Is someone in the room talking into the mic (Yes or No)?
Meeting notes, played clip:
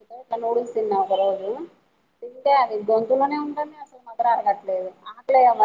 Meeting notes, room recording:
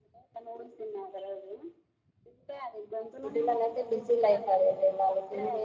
Yes